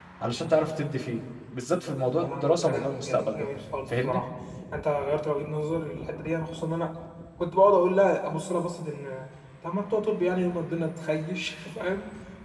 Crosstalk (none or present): present